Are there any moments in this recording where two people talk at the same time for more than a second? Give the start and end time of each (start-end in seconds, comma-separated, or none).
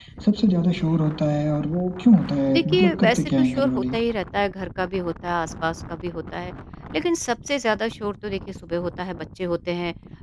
2.5-3.9